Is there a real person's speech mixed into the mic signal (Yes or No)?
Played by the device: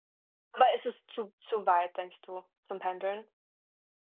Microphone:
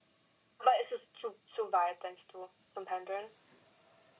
No